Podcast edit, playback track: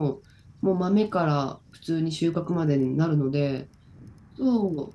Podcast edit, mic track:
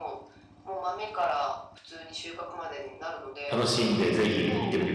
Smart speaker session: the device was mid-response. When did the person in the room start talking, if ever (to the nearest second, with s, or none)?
4 s